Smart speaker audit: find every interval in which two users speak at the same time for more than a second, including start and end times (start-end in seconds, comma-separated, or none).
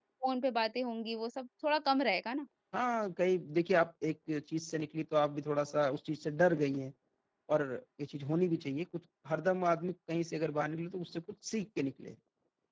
none